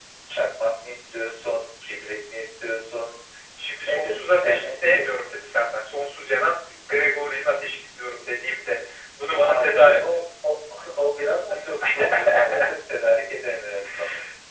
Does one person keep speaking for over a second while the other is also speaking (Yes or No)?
Yes